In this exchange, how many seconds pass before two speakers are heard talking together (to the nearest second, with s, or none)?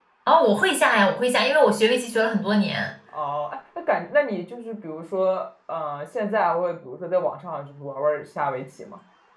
none